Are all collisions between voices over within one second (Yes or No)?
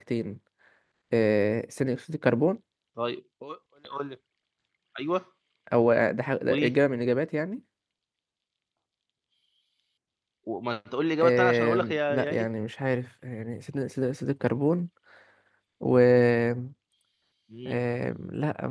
No